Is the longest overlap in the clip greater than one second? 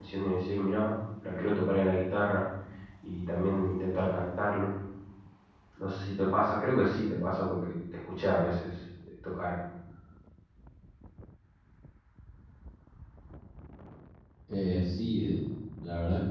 No

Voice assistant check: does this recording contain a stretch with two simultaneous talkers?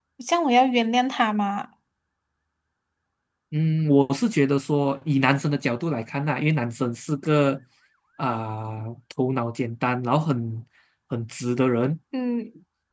No

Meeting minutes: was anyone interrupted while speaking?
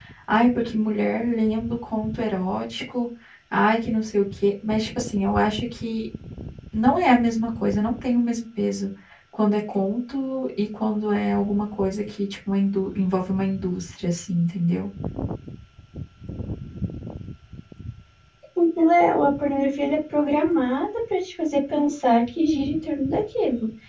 No

